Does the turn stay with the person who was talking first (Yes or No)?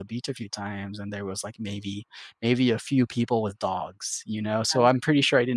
Yes